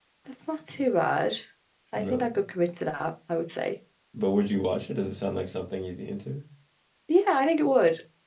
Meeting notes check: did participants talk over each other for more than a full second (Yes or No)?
No